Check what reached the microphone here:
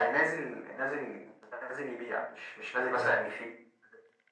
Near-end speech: present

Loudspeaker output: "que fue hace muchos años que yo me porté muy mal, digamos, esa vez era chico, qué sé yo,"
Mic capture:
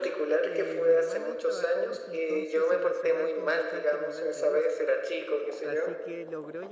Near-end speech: present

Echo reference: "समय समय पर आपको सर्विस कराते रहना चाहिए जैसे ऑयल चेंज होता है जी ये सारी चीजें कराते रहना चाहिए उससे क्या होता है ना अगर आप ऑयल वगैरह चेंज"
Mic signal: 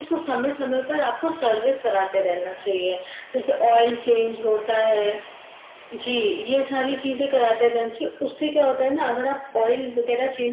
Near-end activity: none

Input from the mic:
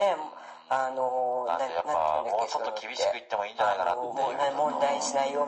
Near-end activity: present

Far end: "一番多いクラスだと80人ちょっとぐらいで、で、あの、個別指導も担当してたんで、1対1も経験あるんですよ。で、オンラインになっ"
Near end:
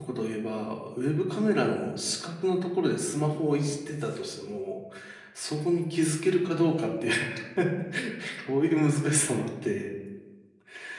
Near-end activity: present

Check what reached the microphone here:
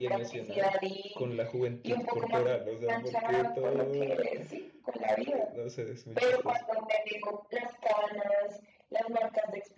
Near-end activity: present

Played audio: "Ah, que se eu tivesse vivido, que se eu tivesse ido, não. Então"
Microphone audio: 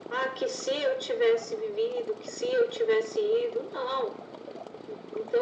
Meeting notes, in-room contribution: none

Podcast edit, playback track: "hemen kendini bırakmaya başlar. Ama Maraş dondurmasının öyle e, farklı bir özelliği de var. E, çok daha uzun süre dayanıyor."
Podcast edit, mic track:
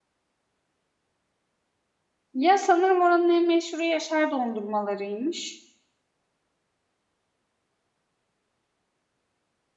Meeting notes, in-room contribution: present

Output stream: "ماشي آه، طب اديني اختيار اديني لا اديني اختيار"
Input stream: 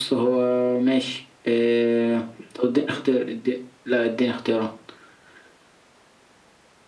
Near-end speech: none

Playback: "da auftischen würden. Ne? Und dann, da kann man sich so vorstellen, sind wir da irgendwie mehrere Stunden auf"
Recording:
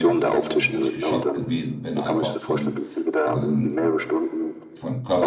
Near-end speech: present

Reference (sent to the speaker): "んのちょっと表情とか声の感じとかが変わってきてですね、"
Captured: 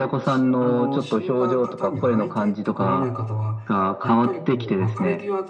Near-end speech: present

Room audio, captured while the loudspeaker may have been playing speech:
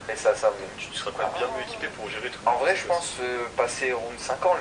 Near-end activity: none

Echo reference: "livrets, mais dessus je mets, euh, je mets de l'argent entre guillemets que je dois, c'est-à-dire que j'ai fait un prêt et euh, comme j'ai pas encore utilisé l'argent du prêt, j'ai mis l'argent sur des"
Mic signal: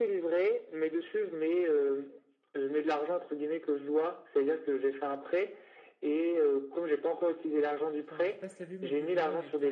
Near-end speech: present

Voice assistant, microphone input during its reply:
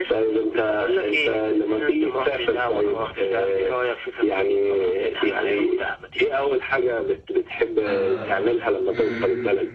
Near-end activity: present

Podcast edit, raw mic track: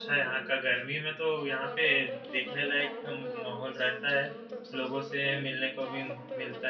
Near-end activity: present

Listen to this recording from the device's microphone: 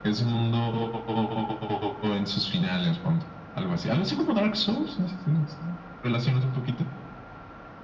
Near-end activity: none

